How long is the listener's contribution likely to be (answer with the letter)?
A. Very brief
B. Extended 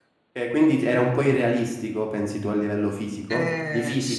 B